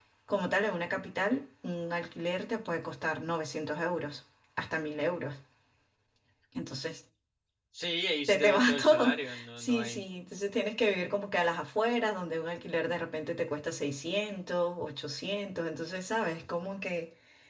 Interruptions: present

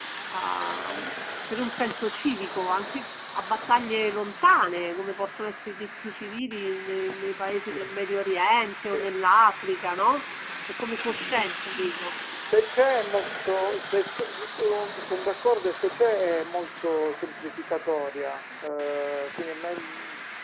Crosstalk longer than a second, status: none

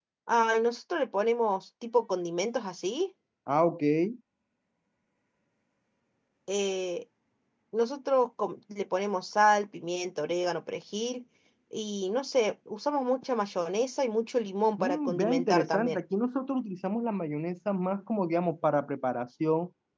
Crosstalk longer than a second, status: present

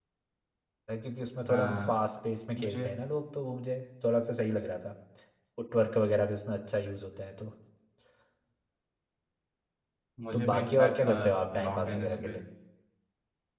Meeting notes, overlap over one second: present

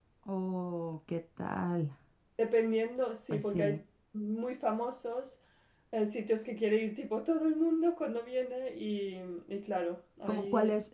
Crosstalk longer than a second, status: none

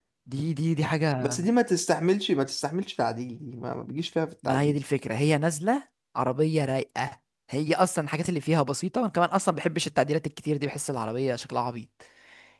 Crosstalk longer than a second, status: none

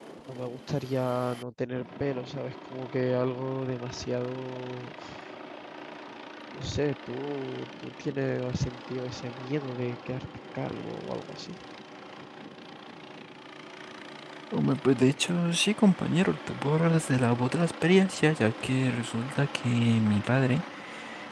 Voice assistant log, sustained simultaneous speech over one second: none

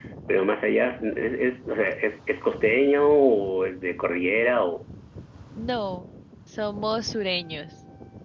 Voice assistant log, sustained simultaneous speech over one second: none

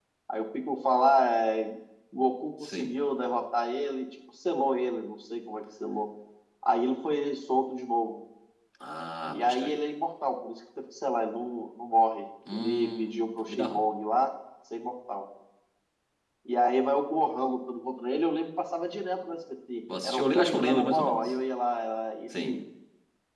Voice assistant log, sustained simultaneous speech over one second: present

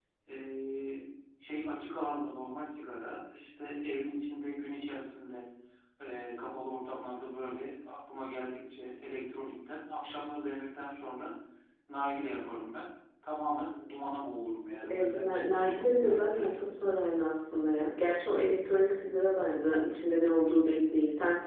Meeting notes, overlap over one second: present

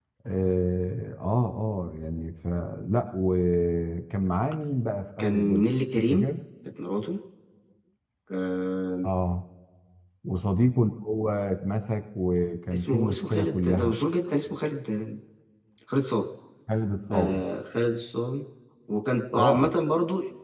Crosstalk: present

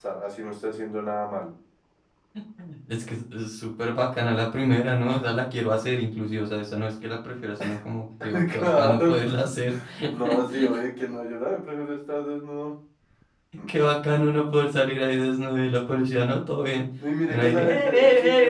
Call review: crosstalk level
present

